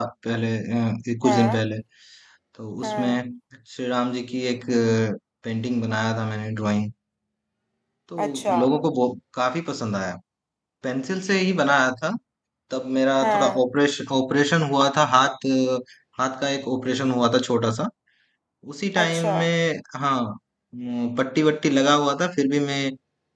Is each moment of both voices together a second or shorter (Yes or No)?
Yes